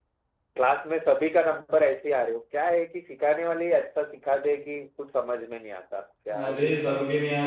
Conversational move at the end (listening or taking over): taking over